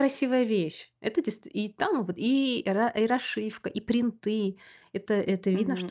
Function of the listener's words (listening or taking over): taking over